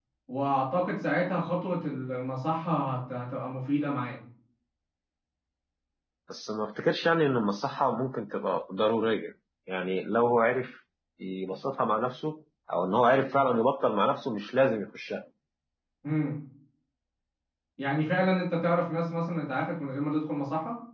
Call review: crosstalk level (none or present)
none